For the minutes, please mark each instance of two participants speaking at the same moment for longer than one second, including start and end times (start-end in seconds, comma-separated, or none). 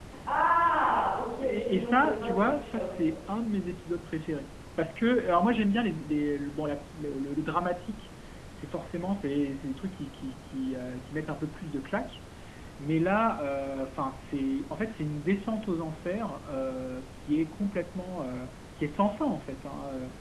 1.4-2.9